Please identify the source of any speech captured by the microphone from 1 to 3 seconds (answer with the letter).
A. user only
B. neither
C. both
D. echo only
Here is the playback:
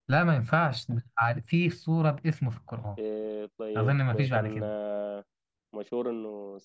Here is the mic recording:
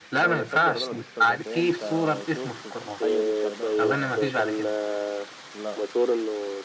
C